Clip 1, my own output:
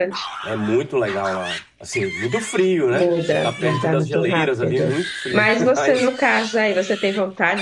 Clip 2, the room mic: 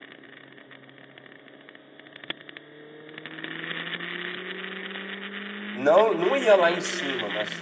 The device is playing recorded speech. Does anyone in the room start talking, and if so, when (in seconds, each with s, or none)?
5.7 s